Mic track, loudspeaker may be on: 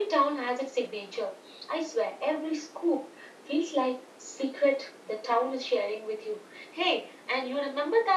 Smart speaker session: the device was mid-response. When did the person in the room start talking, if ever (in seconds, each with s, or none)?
none